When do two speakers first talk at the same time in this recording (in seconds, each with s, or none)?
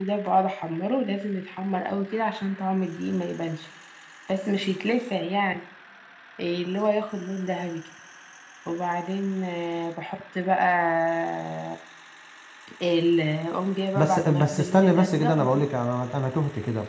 14.0 s